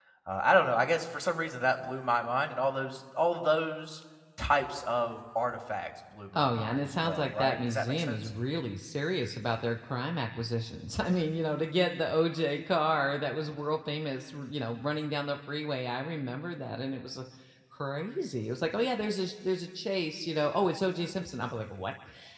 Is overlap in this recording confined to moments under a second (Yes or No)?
No